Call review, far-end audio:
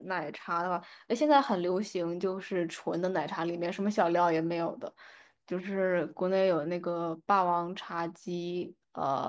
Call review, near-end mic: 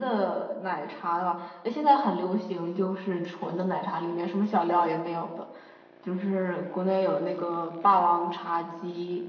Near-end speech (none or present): none